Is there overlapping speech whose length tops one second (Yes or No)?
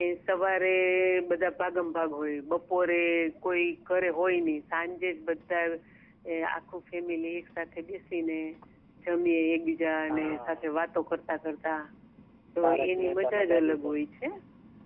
Yes